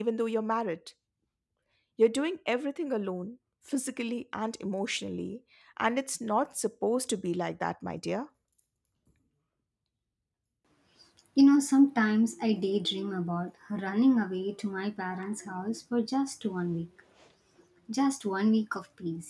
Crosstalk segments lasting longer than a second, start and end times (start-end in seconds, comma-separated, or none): none